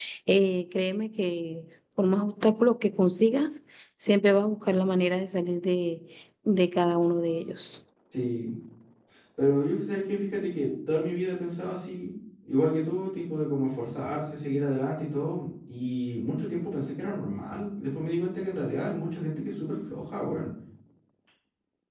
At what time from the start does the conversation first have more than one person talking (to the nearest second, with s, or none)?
none